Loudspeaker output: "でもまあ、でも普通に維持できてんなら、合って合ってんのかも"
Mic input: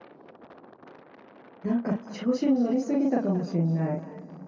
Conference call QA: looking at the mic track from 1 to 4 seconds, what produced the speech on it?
user only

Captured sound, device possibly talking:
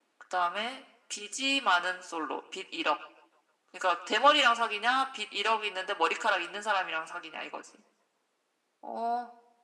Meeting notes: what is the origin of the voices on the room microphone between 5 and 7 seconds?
echo only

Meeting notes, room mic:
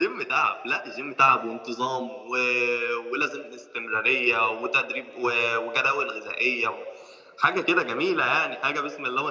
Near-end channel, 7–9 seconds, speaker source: echo only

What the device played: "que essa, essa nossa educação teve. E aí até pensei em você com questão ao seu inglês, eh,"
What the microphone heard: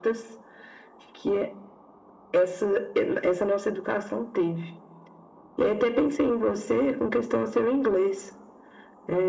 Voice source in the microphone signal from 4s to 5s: echo only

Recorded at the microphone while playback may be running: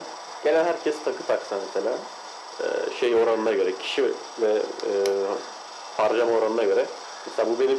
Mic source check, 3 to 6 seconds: echo only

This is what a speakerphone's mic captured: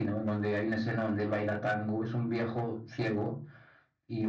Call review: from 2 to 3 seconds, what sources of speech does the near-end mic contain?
echo only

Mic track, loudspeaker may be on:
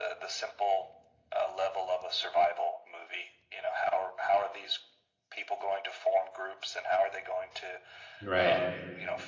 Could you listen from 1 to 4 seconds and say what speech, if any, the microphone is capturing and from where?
echo only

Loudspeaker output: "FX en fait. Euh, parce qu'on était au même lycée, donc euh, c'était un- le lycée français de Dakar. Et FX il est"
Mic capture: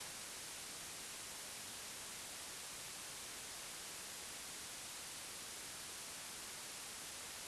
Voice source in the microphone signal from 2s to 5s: neither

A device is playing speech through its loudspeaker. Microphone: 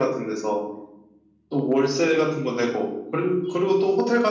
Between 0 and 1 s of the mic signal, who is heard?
echo only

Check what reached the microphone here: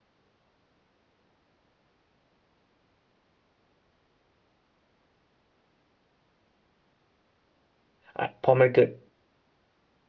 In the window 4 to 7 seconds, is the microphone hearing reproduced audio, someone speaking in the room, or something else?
neither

